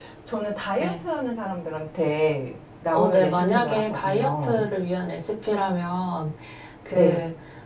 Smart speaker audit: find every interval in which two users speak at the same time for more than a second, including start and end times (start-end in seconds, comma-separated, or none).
2.9-4.7